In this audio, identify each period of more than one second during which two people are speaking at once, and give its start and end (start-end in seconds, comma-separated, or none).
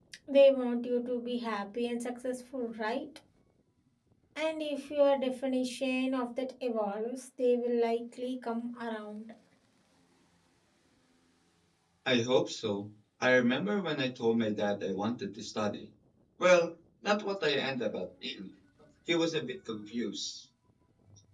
none